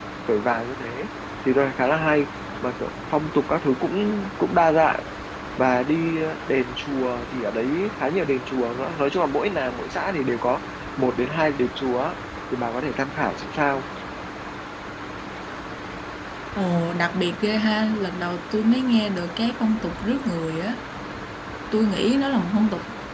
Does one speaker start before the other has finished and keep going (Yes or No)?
No